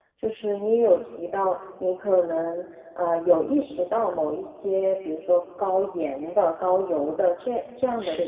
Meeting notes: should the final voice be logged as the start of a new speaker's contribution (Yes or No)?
No